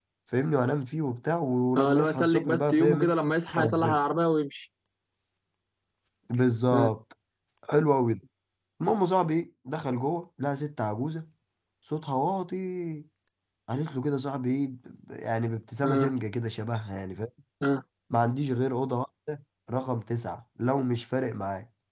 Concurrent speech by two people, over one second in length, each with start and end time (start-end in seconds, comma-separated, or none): 1.8-3.1